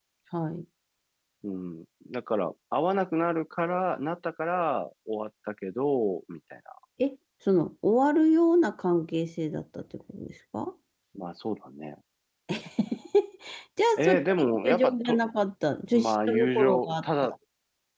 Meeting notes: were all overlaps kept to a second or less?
No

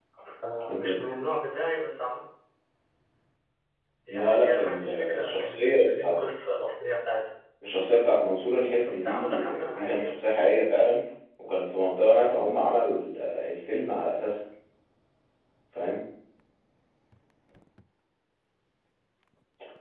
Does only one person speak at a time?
No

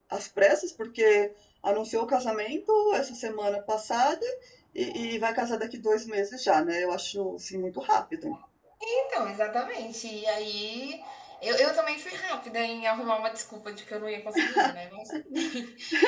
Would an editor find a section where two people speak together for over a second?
No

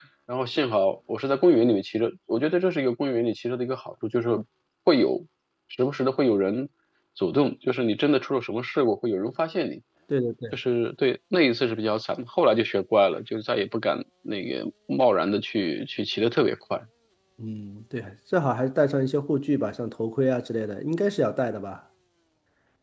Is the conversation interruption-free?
Yes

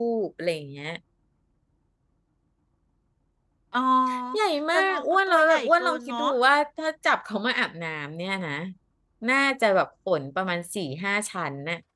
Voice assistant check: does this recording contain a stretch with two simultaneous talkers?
Yes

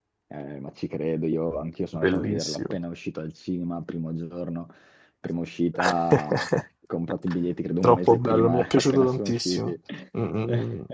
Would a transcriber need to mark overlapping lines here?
Yes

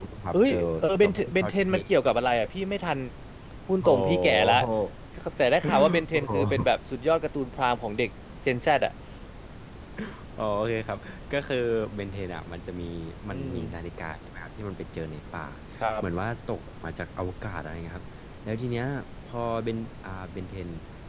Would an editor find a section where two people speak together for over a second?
Yes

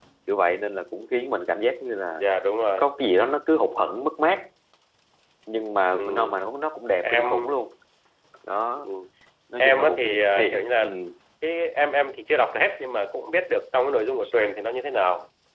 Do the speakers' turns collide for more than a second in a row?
Yes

